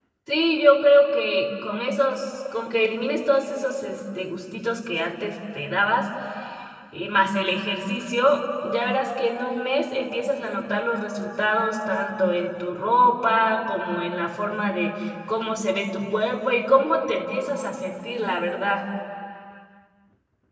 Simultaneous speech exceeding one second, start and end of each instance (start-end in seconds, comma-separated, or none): none